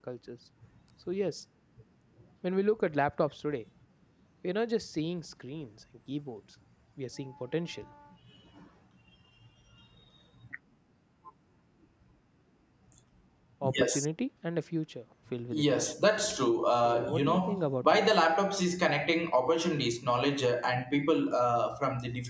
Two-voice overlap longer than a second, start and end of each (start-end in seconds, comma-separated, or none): 16.8-18.3